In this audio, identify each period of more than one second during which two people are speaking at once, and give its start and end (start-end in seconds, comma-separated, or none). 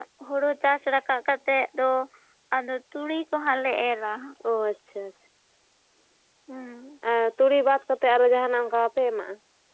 none